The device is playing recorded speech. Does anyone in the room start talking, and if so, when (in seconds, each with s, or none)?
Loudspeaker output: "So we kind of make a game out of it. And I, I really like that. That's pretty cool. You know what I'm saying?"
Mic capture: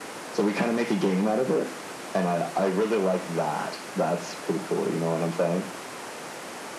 none